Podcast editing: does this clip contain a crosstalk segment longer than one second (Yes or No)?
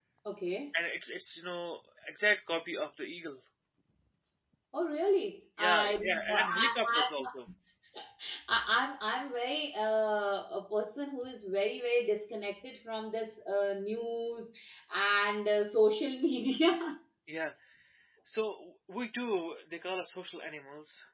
Yes